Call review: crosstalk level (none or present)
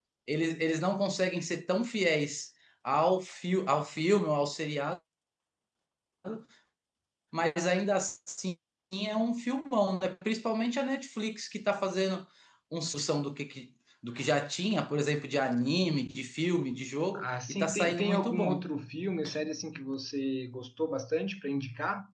present